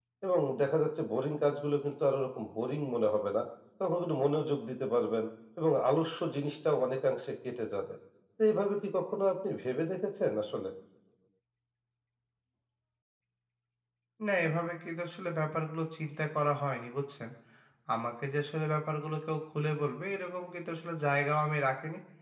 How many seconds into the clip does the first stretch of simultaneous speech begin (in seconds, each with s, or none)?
none